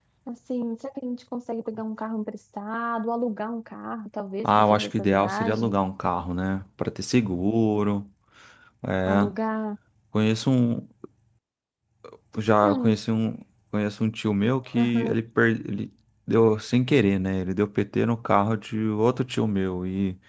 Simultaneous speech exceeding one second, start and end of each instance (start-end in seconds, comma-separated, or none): 4.4-5.8